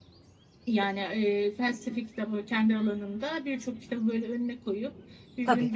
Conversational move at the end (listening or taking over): listening